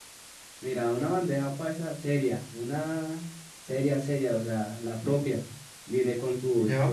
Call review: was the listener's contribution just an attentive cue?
Yes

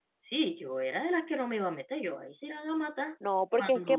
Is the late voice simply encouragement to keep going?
No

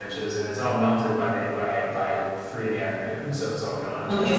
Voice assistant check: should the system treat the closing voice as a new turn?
Yes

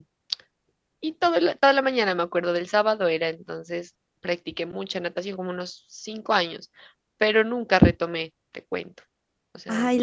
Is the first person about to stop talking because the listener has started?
Yes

